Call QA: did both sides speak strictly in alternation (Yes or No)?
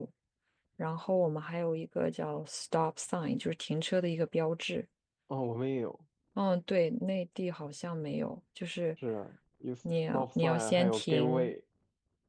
No